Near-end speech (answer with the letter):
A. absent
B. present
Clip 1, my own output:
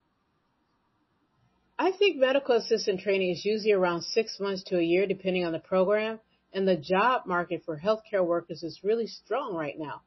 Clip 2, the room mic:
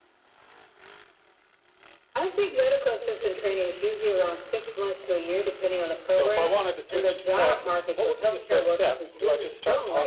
B